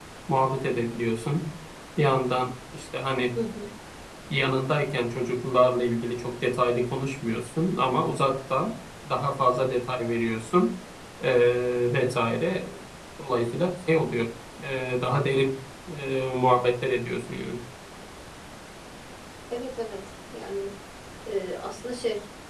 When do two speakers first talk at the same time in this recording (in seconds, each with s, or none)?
none